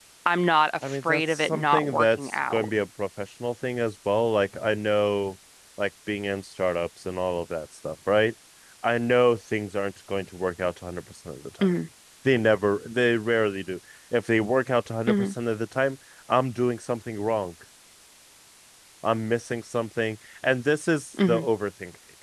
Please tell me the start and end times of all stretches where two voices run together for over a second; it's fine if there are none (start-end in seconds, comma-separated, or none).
0.9-2.7